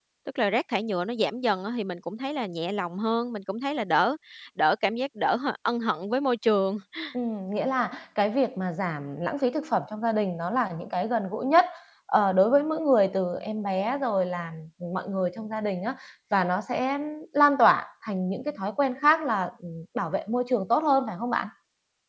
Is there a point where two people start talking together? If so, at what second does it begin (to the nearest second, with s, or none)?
none